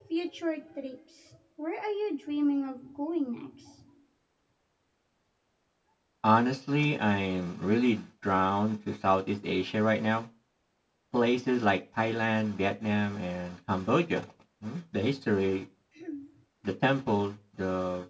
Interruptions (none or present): none